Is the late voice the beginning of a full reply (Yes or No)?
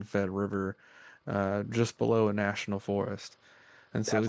No